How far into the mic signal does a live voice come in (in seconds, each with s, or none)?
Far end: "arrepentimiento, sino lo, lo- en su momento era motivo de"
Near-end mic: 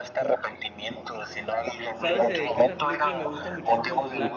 1.9 s